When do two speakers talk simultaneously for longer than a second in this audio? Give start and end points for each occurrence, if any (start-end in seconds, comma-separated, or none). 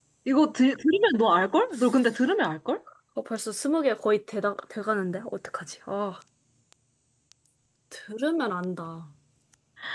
none